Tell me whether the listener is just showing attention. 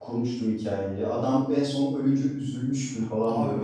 No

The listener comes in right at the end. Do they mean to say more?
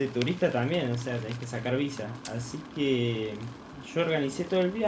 No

